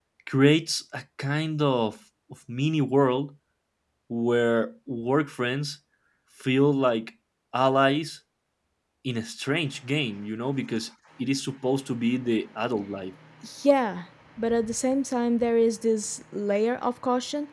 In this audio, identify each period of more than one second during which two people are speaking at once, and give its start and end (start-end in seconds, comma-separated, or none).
none